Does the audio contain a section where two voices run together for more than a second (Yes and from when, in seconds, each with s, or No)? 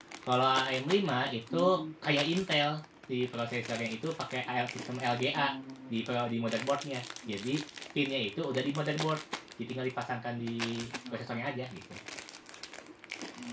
No